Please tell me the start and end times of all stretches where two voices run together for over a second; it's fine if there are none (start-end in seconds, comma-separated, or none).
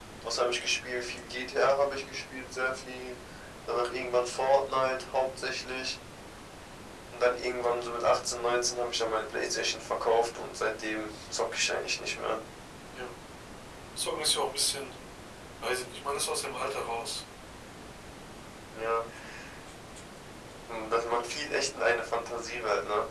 none